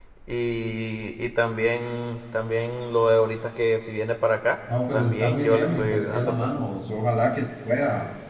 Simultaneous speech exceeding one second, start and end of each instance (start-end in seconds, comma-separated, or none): 4.9-6.5